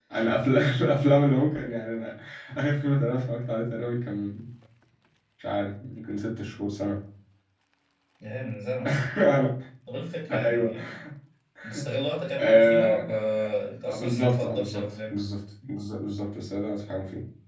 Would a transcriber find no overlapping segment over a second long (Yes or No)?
No